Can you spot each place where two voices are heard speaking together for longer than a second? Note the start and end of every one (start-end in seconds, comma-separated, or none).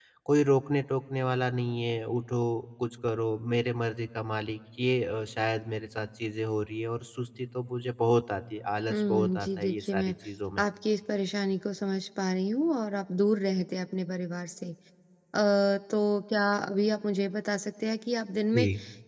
8.9-10.1